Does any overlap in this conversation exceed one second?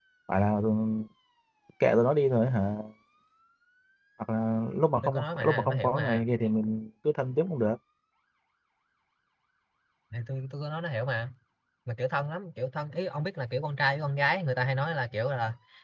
Yes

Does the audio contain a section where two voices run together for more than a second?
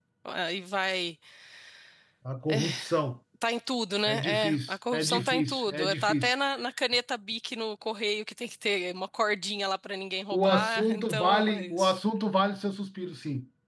Yes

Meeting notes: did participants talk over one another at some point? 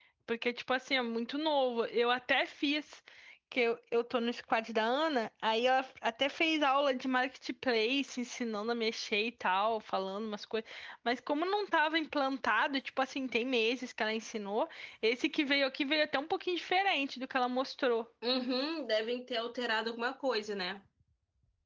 No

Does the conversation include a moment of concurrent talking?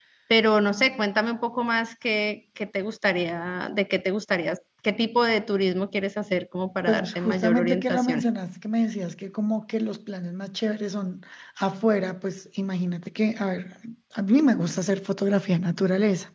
Yes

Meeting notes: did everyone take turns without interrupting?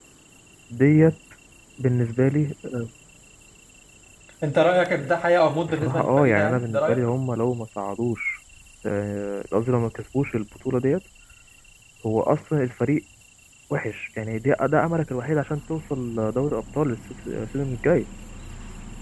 No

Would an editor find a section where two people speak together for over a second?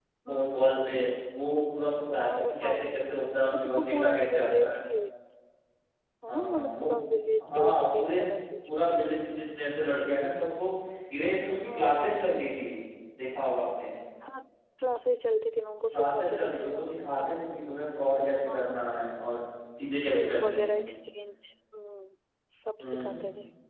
Yes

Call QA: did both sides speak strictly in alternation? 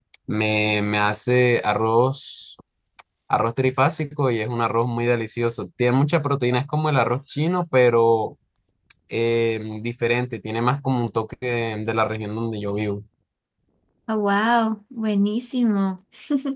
Yes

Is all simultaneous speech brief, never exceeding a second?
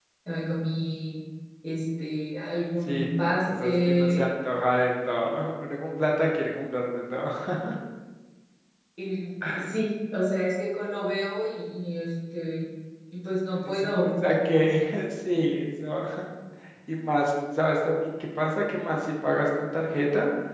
No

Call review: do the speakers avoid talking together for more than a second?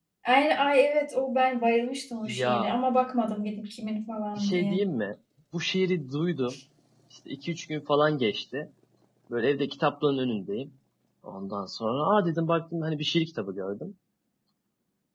Yes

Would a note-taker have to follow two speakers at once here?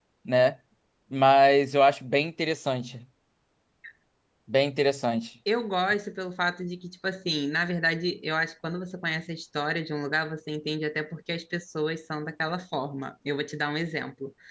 No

